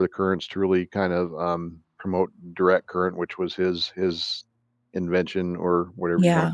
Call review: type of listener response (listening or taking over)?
listening